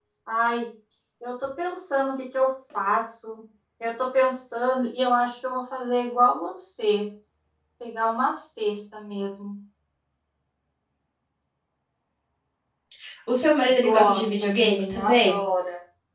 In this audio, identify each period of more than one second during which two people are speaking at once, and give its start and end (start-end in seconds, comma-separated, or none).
13.9-15.4